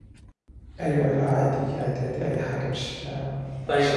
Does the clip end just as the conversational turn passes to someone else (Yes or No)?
Yes